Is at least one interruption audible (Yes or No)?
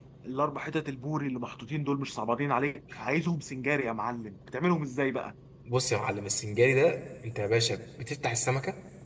No